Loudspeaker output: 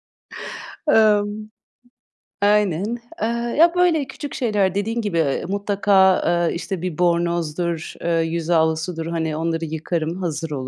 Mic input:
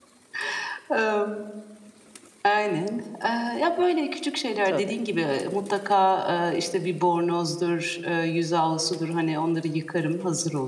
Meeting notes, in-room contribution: present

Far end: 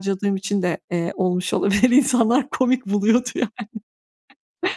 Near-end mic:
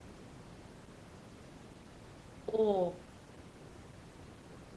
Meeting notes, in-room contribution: present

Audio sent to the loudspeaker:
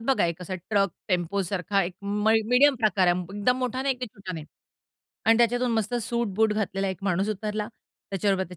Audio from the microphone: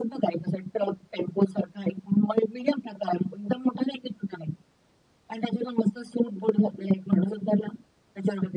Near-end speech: none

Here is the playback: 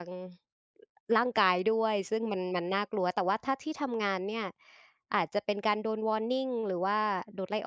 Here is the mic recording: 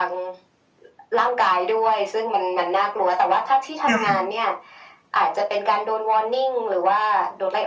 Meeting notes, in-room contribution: present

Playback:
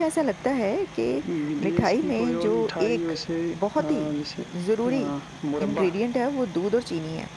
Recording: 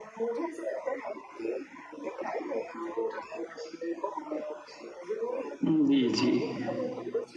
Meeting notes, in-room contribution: present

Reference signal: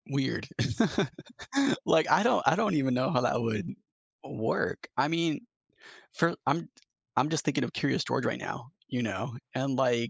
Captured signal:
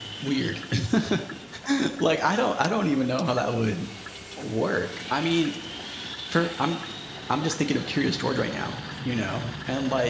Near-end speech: none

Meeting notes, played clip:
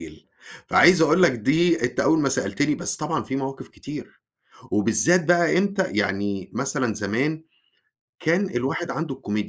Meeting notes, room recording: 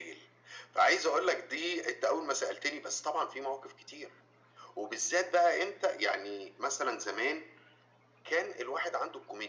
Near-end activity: none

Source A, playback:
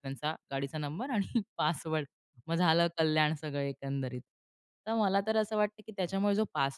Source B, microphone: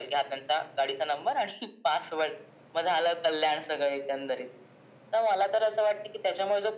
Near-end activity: none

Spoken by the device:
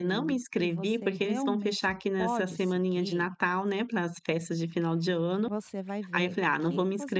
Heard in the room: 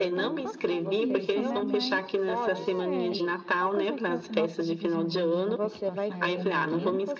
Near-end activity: present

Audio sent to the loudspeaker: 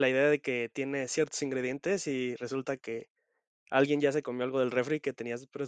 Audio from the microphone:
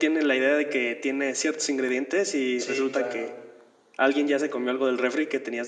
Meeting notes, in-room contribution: present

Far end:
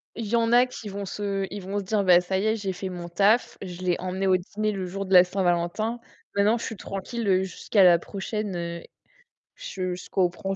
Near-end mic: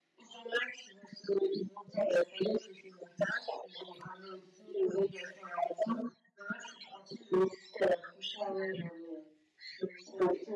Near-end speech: present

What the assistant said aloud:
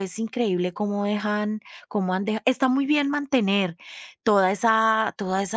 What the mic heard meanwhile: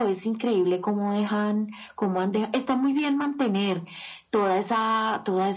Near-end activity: none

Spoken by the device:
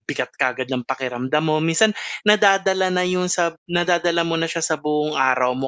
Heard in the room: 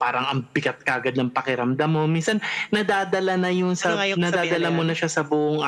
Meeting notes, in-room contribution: present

